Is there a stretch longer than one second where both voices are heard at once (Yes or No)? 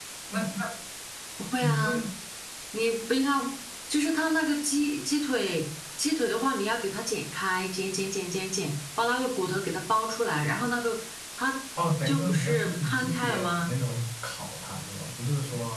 Yes